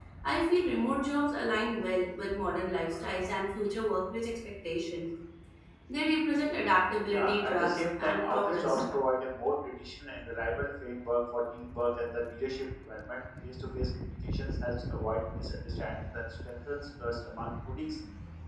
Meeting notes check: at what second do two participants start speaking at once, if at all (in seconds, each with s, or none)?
7.1 s